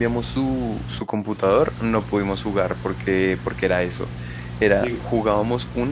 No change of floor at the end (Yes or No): Yes